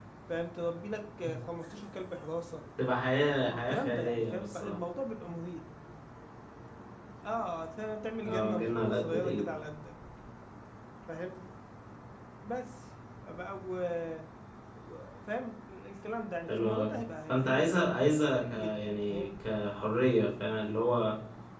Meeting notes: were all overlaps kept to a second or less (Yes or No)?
No